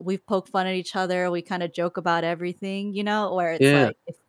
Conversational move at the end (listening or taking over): listening